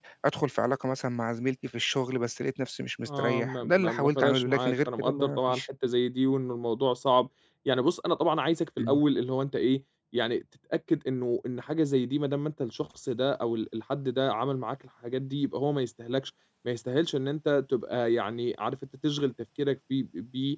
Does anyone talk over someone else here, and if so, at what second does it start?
3.1 s

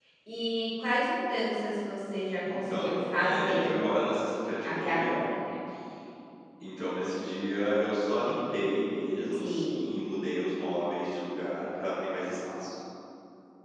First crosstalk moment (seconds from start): 2.5 s

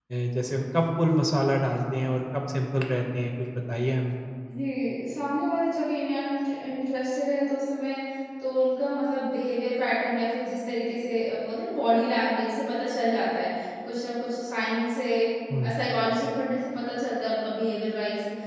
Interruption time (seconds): none

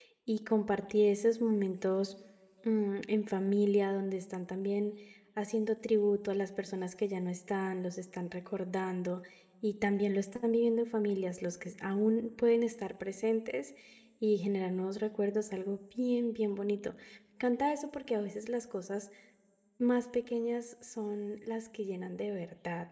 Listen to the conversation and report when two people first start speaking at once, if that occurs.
none

